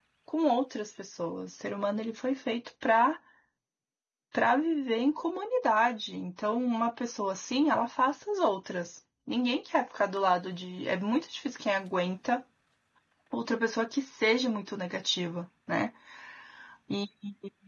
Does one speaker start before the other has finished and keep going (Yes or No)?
No